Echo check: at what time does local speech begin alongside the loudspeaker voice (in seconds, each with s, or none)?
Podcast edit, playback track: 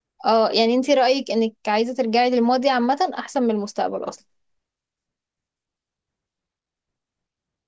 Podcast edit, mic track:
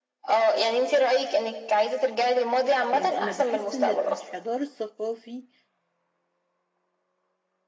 2.9 s